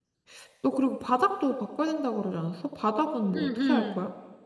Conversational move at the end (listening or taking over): taking over